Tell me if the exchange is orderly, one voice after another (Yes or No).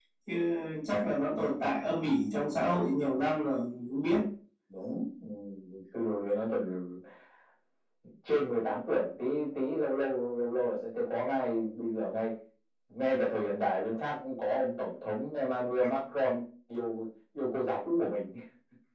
Yes